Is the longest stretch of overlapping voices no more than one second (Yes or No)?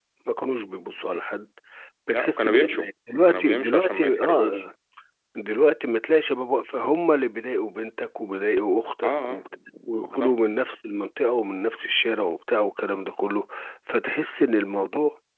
No